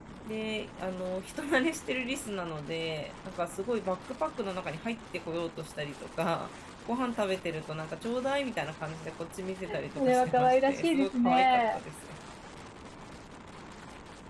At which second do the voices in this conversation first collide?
10 s

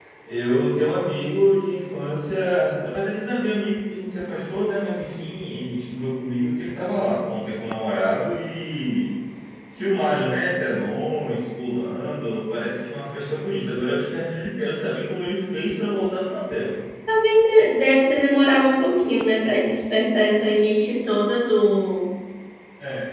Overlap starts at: none

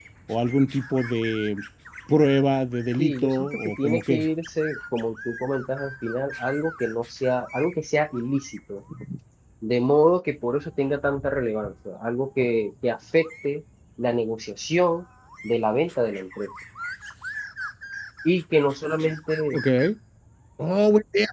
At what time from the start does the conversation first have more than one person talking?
3 s

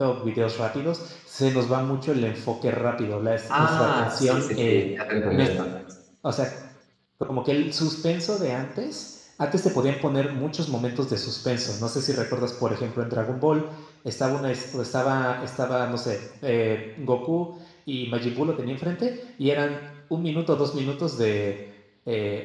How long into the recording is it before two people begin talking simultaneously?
4 s

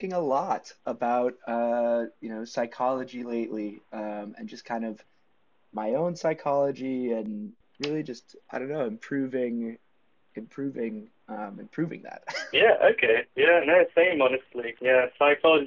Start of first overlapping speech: none

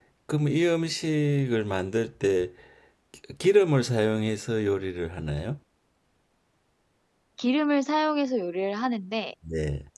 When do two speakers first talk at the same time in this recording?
none

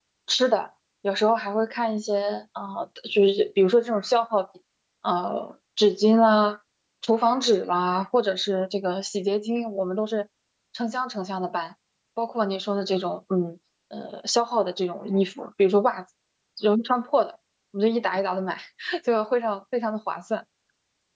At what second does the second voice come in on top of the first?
none

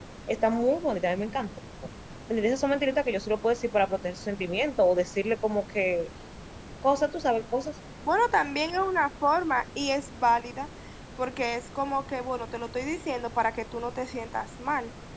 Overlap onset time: none

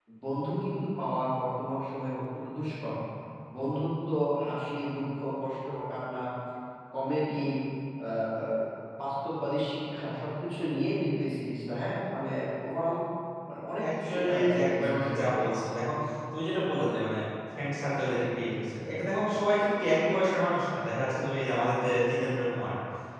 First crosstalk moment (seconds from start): 14 s

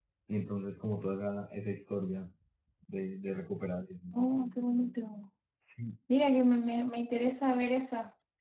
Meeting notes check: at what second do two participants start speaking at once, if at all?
none

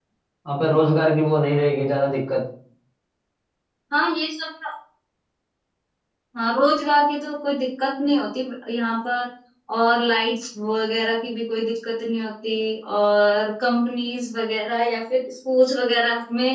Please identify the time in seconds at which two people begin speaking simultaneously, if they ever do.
none

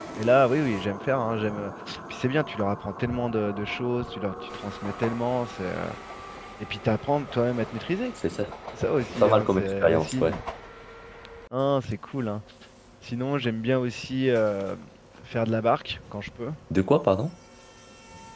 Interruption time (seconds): 9 s

